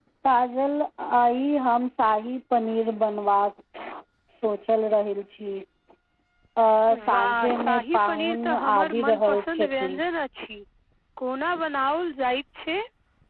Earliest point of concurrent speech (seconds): 7.1 s

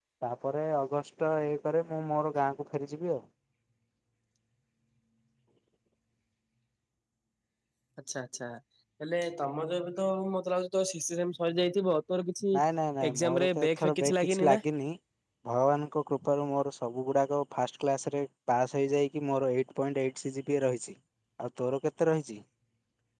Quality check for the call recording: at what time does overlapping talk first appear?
13.1 s

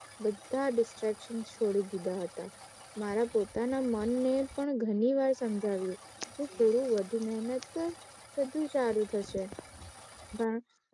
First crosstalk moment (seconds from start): none

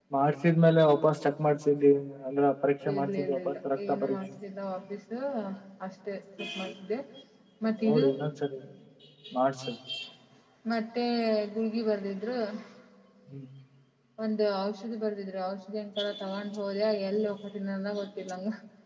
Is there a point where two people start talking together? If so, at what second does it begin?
2.9 s

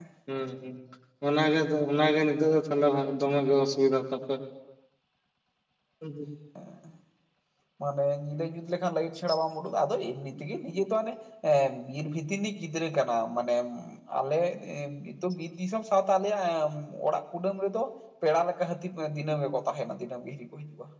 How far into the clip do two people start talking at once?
none

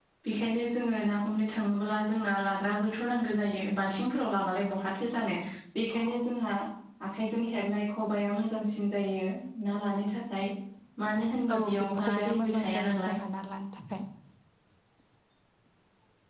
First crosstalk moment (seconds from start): 11.6 s

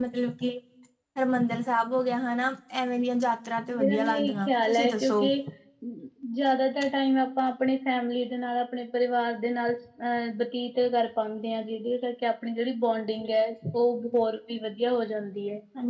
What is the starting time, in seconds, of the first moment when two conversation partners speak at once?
3.6 s

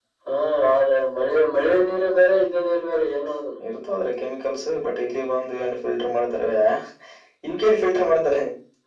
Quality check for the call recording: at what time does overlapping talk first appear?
none

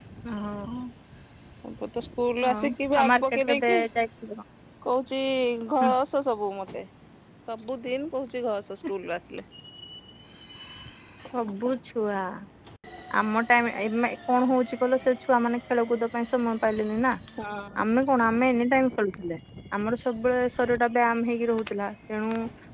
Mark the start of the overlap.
2.5 s

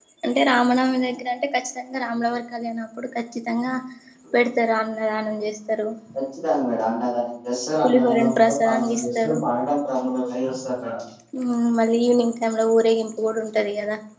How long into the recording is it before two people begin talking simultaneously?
7.8 s

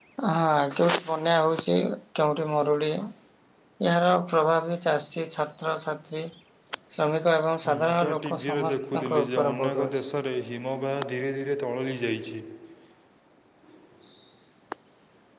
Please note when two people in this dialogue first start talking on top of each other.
7.7 s

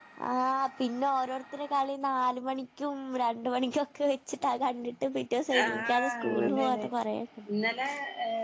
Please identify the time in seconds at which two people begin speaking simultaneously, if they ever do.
5.5 s

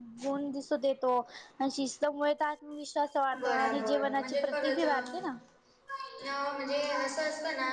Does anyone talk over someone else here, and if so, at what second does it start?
3.3 s

